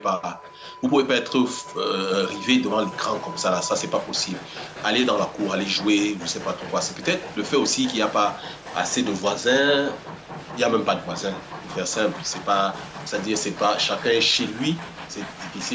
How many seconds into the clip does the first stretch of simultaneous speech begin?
none

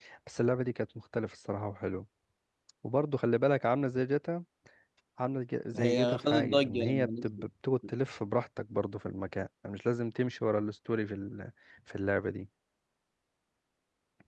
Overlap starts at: 5.8 s

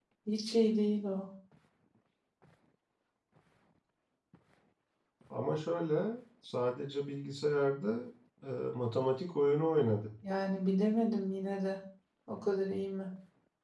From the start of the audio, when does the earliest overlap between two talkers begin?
none

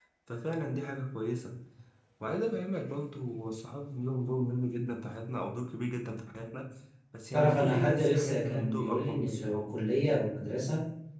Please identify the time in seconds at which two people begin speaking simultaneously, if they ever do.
7.3 s

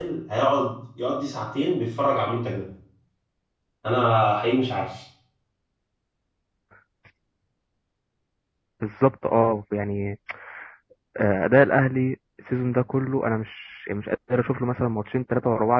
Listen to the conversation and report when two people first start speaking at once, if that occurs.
none

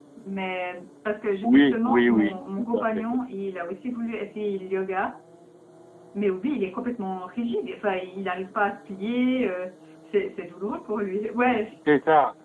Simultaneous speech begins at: 1.4 s

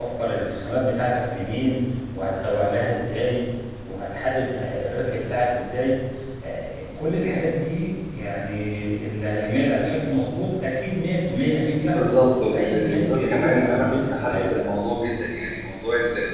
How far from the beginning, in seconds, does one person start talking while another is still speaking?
12.5 s

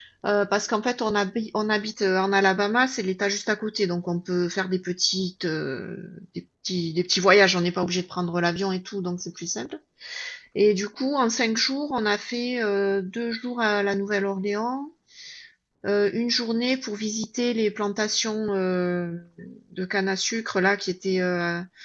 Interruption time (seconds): none

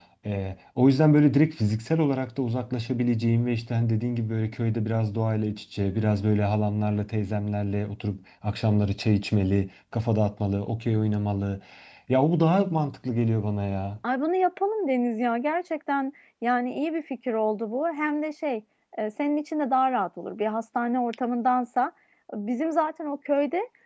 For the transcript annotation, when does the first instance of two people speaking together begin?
none

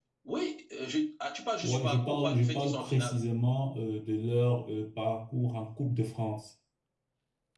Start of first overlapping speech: 1.6 s

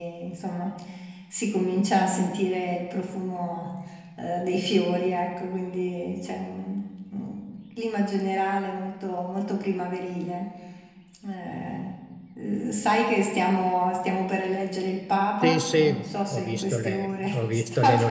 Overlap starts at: 15.4 s

